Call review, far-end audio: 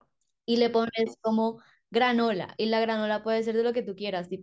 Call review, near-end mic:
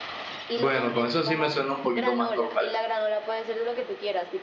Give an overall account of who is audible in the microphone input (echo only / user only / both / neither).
both